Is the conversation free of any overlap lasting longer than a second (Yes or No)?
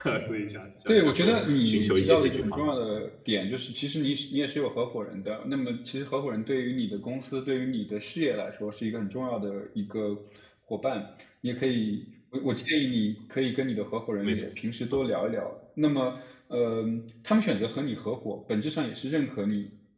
No